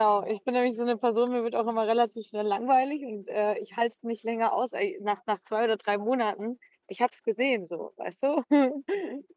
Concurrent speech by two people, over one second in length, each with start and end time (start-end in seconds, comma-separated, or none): none